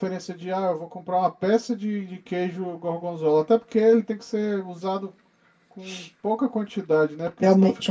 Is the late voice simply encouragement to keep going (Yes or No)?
No